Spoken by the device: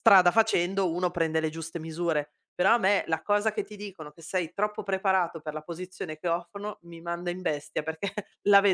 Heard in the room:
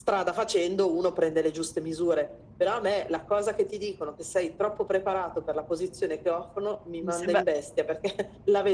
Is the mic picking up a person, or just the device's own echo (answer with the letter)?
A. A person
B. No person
A